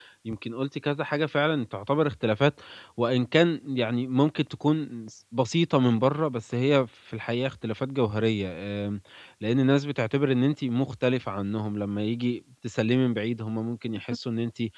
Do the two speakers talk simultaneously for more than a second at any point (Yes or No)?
No